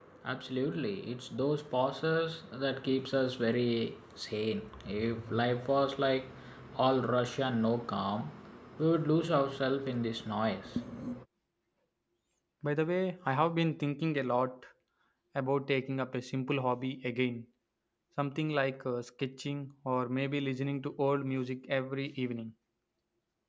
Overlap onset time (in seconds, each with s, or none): none